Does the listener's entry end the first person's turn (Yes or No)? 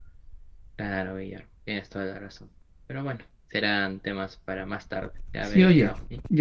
Yes